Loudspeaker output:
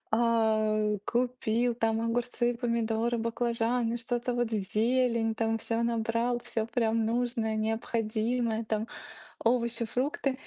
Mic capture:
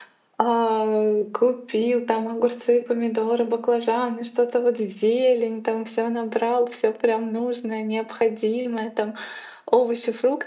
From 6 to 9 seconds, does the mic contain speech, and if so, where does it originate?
echo only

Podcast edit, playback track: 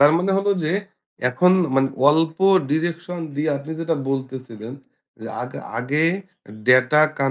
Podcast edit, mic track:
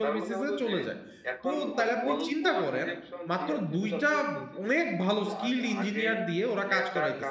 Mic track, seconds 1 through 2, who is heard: both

